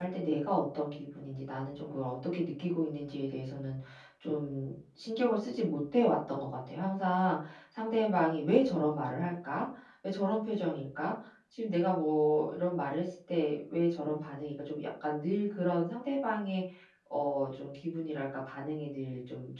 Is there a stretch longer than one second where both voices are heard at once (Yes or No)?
No